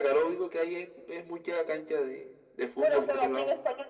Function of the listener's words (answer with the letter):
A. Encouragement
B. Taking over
B